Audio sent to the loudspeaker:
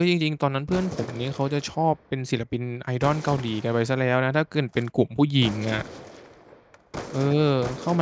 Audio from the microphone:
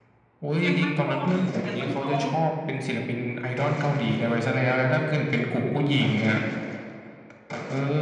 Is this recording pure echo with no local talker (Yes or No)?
No